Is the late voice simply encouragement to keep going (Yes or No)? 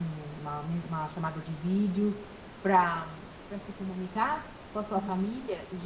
Yes